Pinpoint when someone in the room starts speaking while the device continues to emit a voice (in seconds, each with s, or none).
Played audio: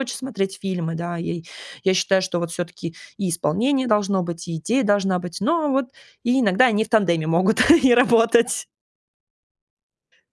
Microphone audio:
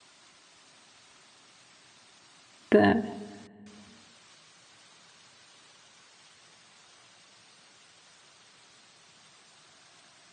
2.7 s